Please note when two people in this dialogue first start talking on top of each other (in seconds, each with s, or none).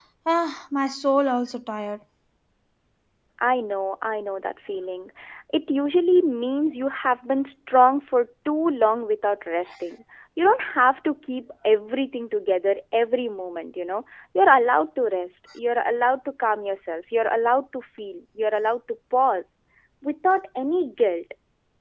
none